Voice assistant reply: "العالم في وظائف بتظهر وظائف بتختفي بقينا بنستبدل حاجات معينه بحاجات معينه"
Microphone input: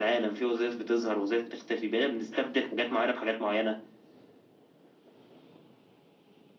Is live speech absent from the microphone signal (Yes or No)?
Yes